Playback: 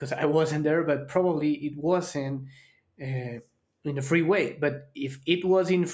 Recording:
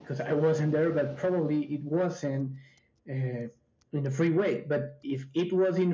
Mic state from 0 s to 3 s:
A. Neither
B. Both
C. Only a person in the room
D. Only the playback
D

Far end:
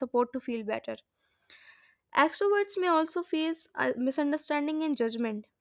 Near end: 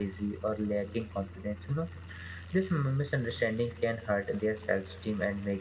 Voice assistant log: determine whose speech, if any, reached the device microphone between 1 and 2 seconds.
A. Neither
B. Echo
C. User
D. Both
C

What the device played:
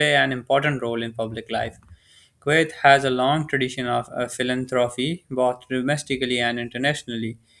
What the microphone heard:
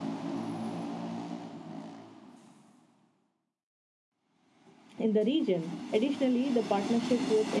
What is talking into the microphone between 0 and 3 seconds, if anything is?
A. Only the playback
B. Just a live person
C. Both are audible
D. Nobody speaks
D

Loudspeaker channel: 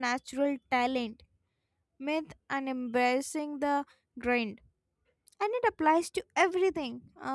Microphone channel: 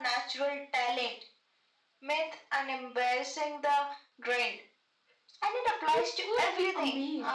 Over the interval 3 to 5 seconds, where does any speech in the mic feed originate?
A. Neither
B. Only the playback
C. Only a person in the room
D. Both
B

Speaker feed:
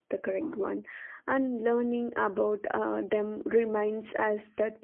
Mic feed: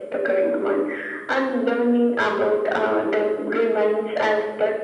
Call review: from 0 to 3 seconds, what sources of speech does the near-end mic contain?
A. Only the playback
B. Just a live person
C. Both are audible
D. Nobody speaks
A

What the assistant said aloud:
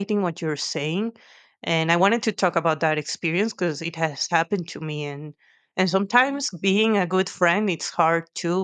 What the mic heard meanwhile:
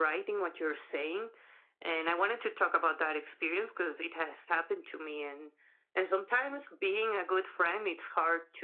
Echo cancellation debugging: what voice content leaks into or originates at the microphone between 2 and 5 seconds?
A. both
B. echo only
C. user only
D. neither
B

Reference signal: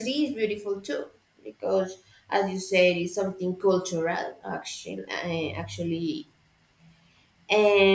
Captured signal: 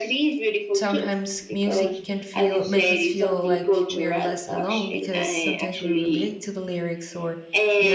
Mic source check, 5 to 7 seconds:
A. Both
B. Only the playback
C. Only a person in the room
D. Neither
A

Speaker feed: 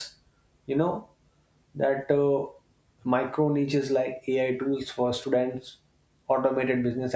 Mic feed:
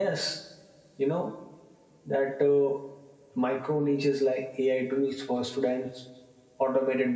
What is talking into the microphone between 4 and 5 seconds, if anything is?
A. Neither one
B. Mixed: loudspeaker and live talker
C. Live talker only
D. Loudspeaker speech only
D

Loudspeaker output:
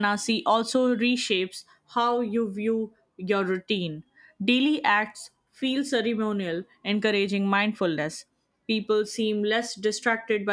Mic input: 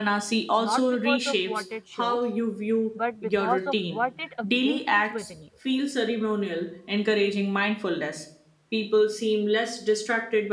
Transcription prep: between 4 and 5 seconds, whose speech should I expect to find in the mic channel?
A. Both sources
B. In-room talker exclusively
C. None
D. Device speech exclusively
A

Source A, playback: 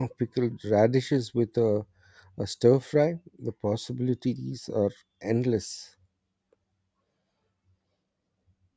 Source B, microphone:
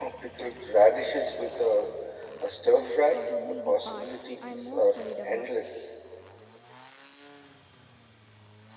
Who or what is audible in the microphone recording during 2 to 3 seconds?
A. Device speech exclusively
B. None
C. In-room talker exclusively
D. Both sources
D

